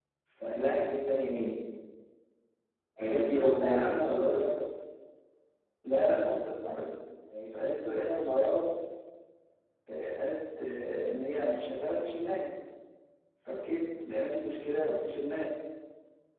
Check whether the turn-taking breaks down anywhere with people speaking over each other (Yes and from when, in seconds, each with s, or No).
Yes, from 3.0 s